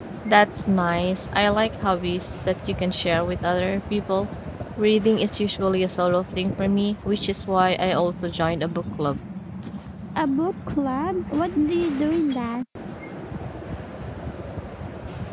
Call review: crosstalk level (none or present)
none